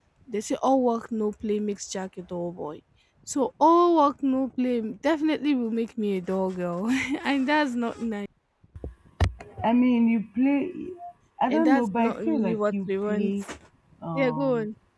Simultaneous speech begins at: 11 s

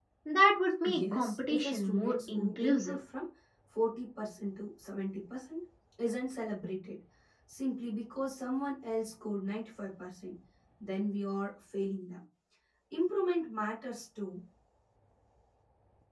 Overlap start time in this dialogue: 1 s

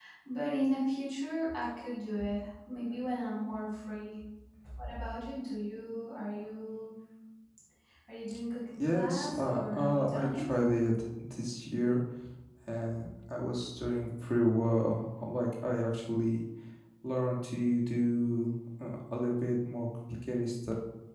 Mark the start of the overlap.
9 s

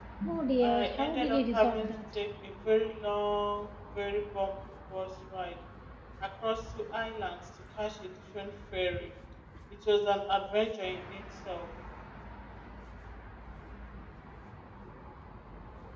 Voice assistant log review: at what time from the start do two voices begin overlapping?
1 s

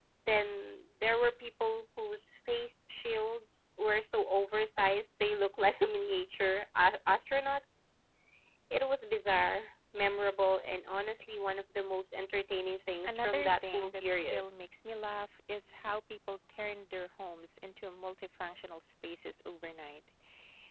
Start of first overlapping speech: 13 s

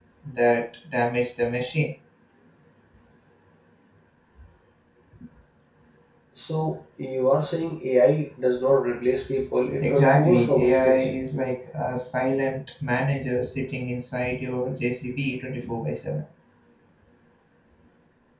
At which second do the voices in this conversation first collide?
10 s

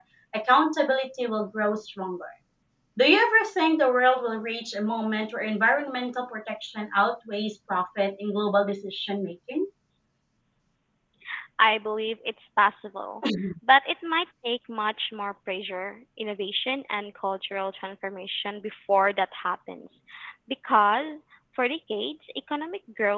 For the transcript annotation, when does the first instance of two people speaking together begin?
none

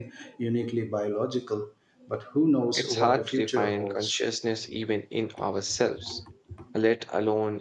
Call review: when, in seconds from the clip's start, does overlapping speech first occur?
3 s

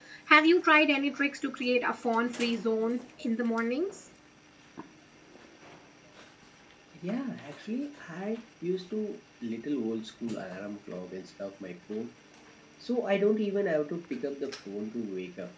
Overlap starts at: none

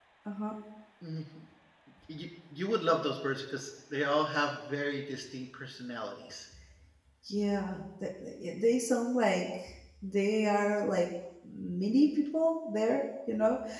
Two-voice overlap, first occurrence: none

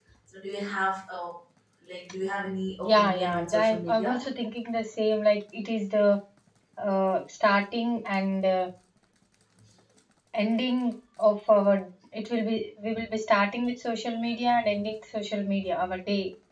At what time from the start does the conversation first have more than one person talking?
3 s

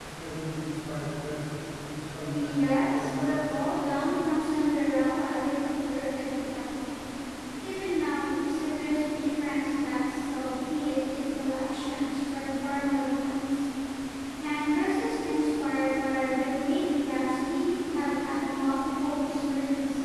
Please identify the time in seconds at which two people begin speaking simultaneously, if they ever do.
2 s

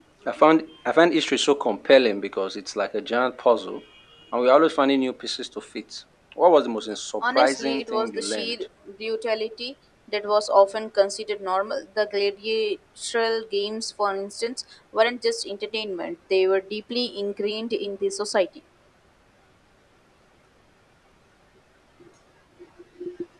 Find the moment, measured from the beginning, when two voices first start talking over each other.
7 s

